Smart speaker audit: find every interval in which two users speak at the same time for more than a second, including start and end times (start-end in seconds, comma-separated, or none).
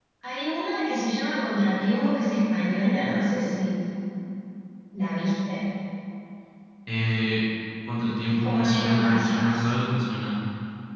8.2-9.7